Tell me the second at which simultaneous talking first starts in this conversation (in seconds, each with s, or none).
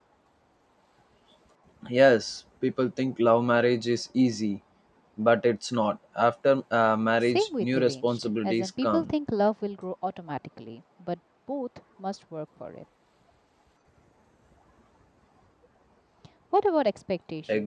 7.2 s